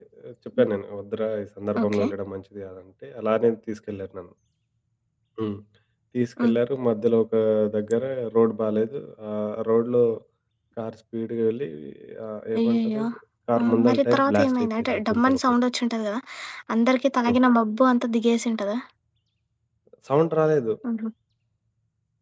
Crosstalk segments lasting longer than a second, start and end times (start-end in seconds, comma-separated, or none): 13.6-15.4